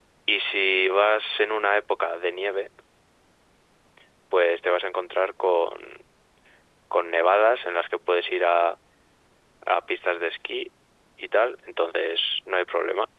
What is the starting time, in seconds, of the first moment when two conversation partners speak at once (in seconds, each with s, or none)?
none